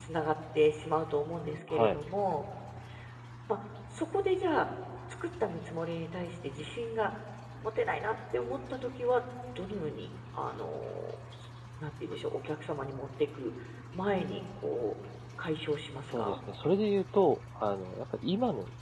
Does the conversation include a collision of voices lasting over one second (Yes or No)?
No